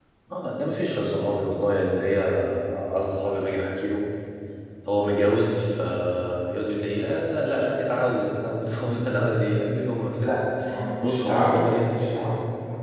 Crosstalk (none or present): present